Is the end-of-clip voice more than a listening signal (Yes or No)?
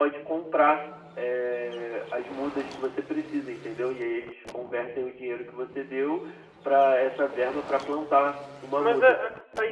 Yes